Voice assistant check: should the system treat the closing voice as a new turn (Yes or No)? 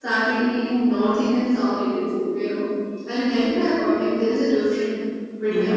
Yes